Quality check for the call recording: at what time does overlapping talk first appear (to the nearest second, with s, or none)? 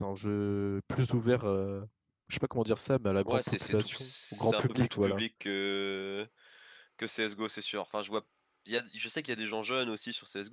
3 s